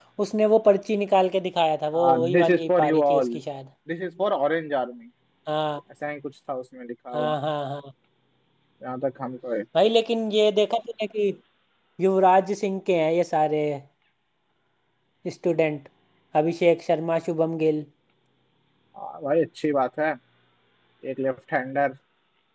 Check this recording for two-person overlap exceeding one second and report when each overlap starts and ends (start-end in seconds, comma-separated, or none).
1.9-3.4